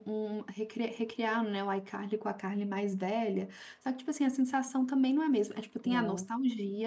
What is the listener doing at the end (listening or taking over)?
listening